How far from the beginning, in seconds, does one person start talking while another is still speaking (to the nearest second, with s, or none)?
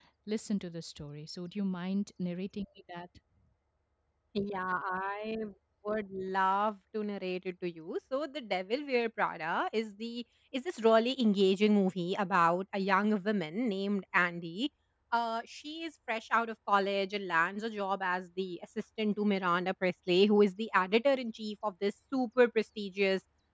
none